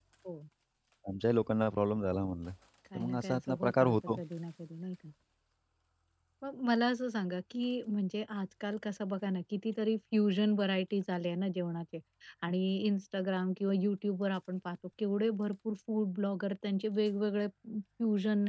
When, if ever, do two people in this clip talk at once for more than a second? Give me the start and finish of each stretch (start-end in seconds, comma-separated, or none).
3.0-4.2